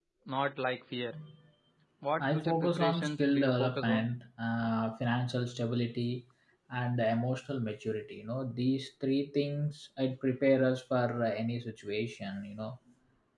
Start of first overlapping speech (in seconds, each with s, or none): 2.2 s